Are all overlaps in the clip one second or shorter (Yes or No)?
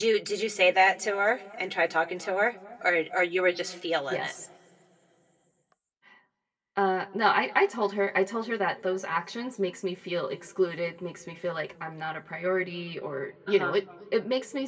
Yes